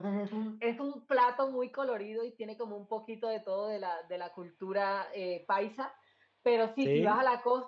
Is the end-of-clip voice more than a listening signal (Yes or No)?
No